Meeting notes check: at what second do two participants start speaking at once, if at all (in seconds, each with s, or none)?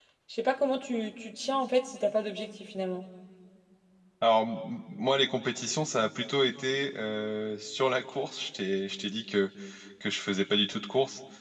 none